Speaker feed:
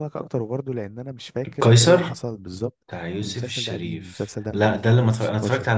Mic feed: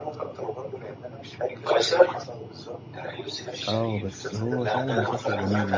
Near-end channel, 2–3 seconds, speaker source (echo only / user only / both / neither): echo only